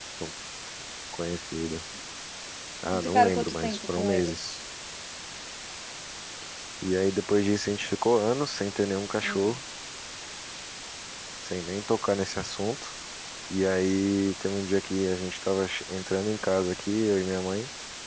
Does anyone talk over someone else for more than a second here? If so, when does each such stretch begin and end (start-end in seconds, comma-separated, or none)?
2.9-4.3